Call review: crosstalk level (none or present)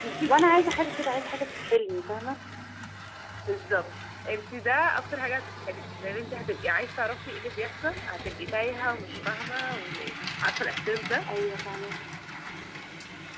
none